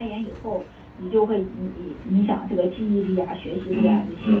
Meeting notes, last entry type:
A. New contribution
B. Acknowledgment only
A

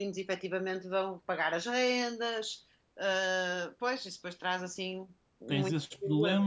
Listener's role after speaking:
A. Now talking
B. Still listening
A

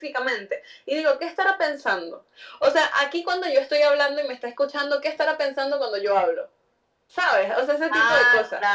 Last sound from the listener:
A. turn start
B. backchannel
A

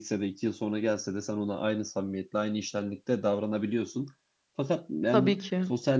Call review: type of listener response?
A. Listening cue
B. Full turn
A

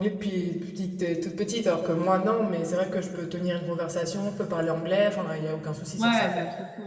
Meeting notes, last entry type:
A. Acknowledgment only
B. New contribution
B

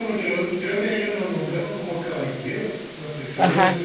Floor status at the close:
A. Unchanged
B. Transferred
B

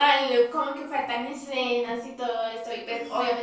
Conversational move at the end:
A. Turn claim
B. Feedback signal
B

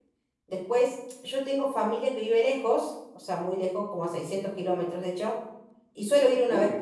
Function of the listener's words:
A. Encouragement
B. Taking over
A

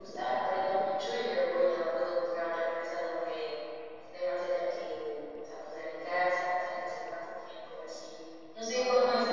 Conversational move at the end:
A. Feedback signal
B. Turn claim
A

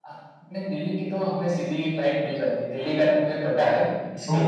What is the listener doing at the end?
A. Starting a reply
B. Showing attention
A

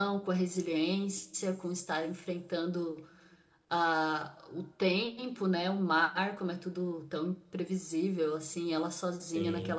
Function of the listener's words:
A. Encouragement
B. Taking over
A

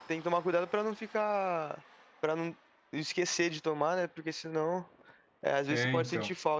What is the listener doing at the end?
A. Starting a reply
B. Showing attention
B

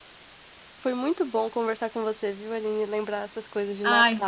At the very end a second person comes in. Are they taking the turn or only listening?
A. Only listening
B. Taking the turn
A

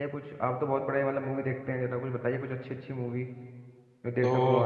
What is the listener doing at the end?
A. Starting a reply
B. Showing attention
A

